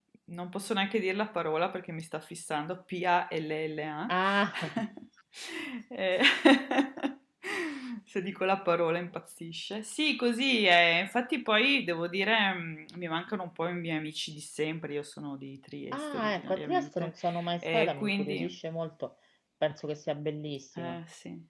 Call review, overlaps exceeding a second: present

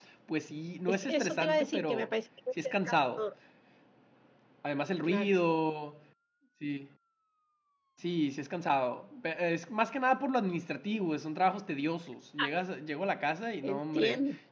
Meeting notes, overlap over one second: present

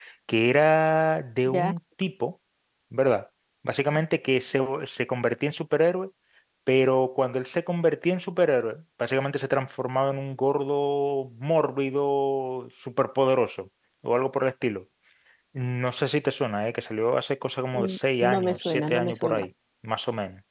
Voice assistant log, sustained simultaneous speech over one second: present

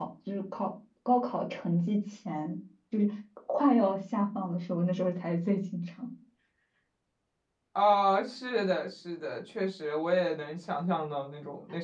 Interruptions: none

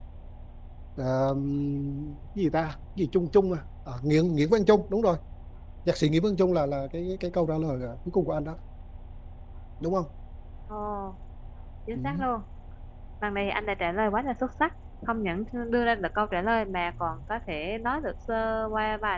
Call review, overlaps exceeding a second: none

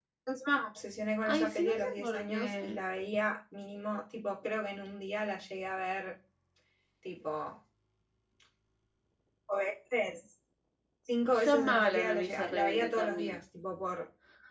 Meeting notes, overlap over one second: present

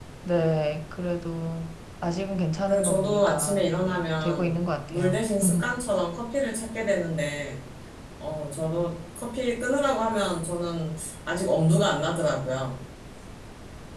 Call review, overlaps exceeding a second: present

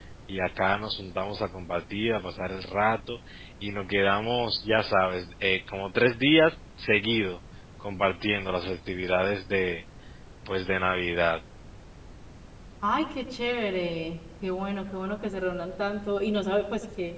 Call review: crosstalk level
none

